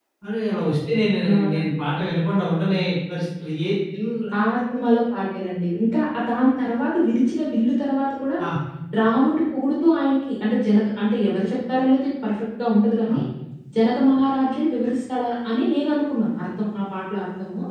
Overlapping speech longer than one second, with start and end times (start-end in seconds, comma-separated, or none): none